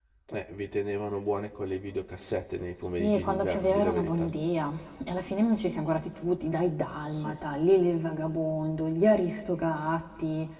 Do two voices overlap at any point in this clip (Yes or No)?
Yes